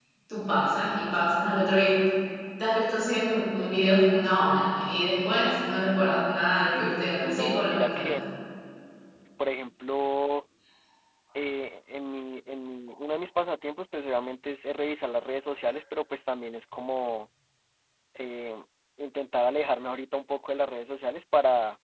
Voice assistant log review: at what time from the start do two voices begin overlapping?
7 s

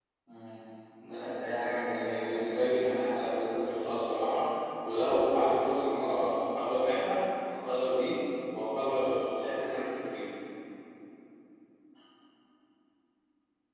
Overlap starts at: 1 s

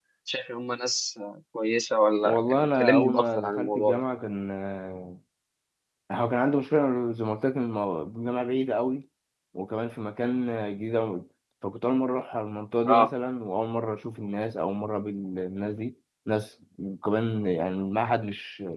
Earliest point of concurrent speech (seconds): 2 s

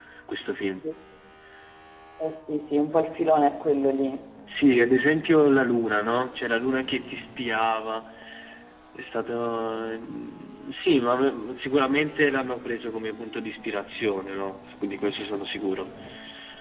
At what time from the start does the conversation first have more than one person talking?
none

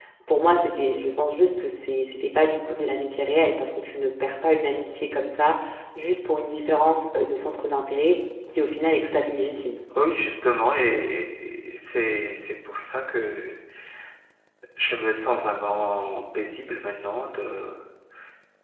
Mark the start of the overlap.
none

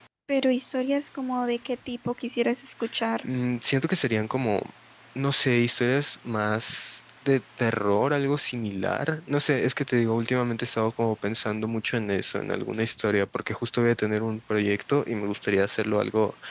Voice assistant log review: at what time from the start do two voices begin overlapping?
none

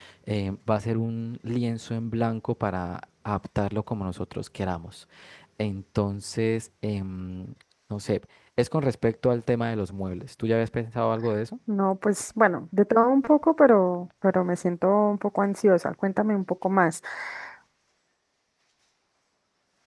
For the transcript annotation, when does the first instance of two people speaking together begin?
none

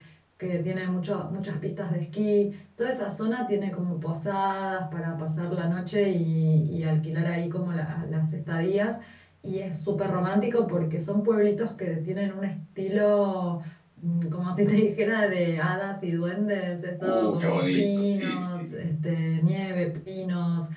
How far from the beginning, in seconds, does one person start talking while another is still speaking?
17 s

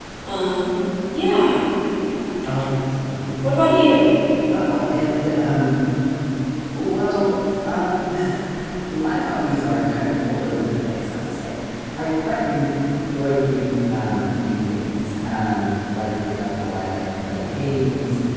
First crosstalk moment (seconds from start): none

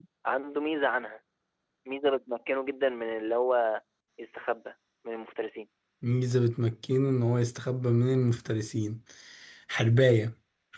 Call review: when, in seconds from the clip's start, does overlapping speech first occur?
none

